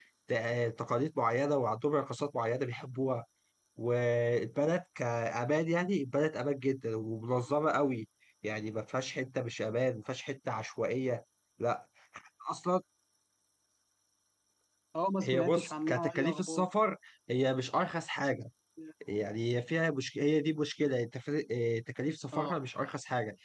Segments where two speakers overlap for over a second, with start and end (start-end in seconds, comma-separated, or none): 15.2-16.7